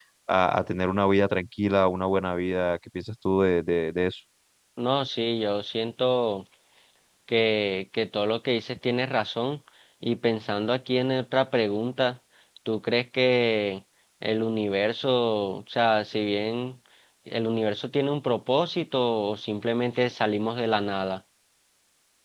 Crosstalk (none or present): none